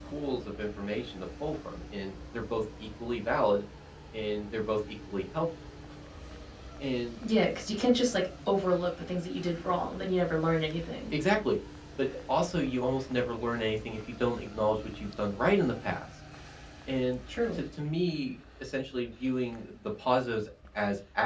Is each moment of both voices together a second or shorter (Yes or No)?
Yes